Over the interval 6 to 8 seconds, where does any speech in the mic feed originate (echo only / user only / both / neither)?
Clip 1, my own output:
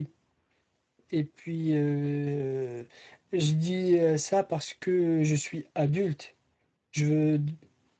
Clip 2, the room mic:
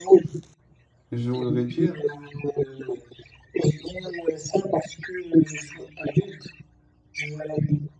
echo only